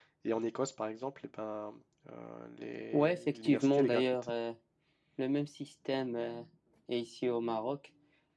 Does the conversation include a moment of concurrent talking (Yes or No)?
Yes